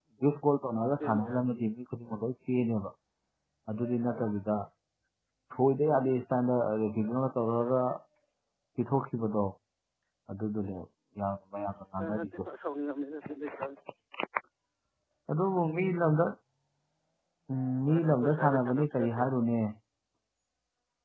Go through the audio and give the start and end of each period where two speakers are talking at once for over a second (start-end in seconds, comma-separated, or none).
17.9-19.2